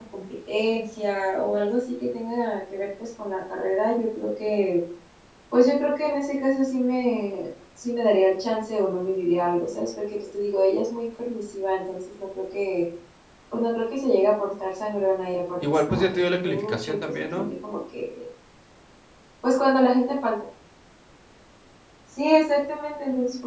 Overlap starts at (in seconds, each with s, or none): 15.6 s